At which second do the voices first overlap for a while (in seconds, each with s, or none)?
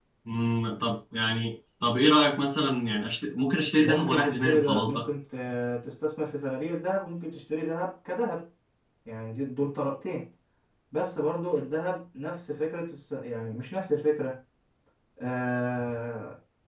3.8 s